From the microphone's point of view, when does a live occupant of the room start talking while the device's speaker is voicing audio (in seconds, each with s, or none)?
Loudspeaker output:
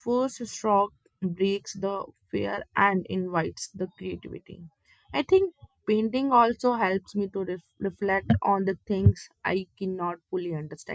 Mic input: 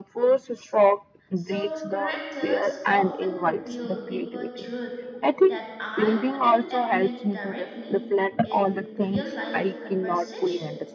1.3 s